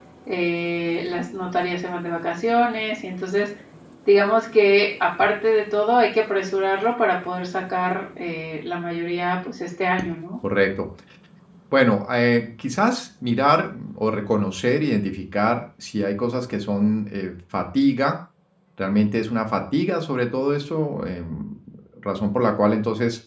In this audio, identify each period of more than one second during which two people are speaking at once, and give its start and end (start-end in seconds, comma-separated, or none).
none